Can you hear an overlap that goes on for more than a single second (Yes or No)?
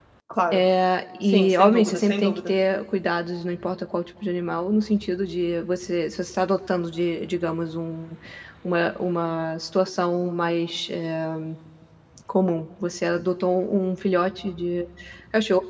Yes